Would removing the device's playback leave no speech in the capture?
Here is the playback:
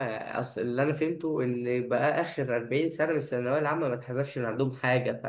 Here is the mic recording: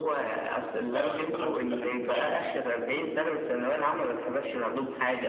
No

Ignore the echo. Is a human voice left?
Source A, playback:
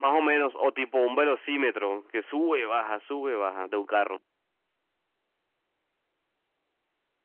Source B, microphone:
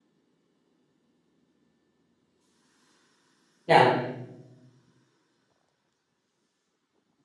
Yes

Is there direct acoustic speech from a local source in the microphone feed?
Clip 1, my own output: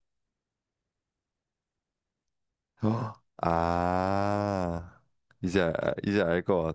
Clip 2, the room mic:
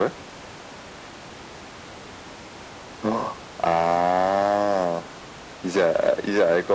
No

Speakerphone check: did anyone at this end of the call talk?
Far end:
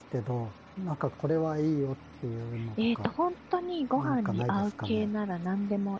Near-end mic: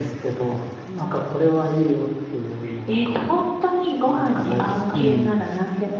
Yes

